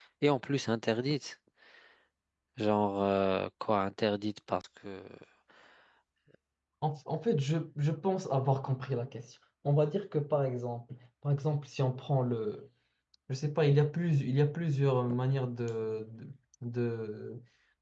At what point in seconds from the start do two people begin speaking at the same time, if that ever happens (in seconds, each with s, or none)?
none